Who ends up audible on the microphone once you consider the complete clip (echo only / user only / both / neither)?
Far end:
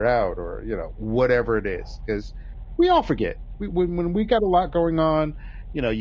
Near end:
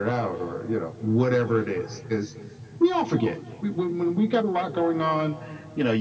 echo only